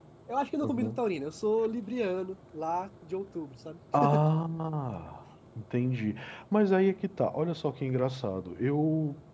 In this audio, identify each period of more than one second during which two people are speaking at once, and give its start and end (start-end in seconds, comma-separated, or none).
none